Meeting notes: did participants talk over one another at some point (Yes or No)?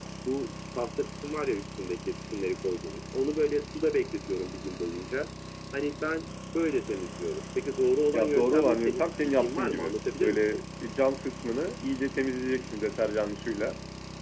Yes